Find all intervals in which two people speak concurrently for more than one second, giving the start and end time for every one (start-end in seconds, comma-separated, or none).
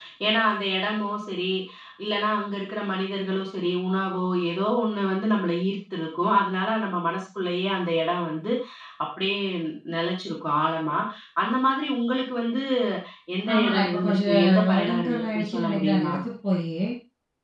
13.5-16.1